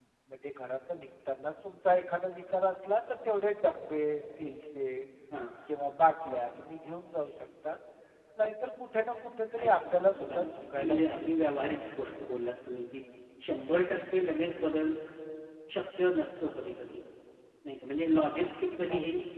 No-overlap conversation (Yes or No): No